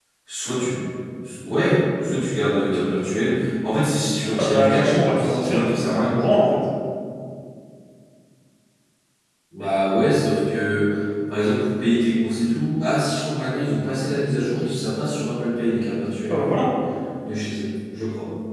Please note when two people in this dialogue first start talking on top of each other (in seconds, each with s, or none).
4.3 s